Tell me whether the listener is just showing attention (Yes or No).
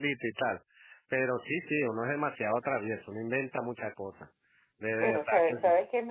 No